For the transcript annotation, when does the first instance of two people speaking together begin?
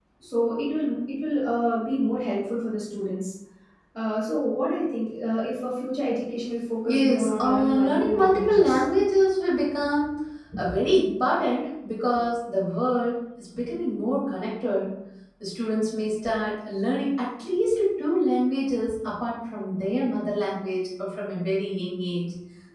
6.8 s

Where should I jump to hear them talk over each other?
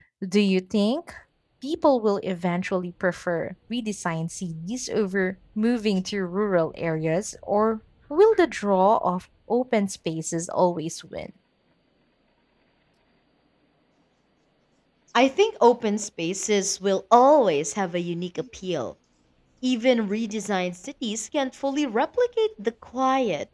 none

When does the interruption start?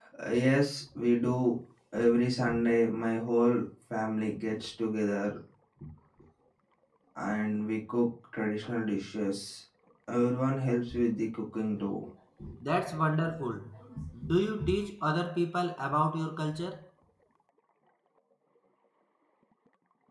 none

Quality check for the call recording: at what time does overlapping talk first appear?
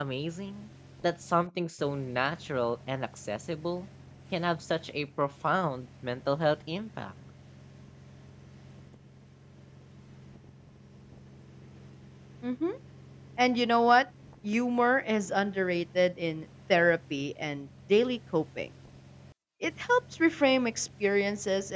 none

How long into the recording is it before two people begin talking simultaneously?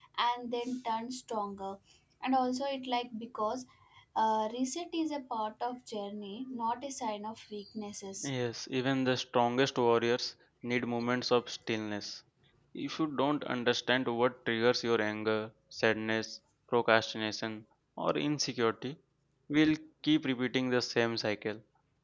none

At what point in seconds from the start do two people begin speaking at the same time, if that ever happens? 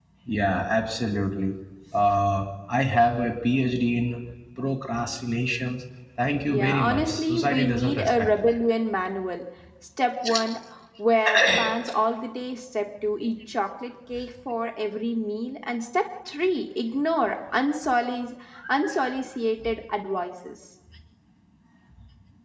6.5 s

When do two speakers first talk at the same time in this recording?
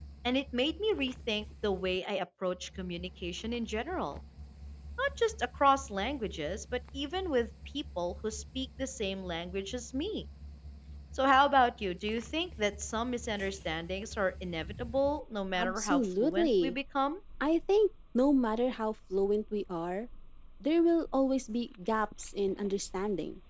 15.6 s

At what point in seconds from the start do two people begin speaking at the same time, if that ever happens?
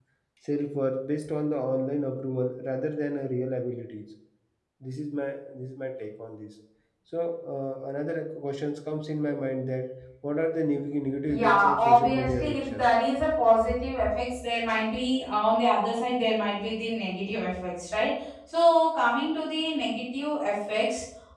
11.3 s

